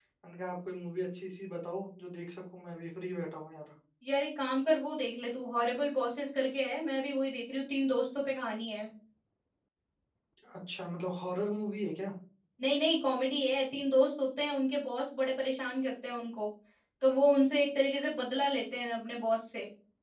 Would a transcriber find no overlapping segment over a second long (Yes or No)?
Yes